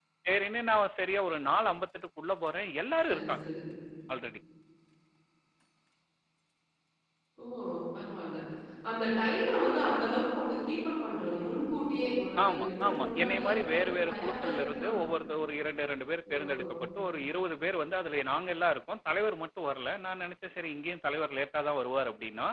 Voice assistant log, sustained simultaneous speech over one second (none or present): present